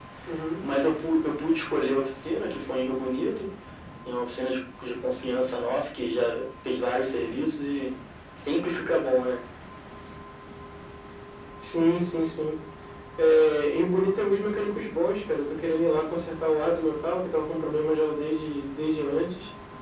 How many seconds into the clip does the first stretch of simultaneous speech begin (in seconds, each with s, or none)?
none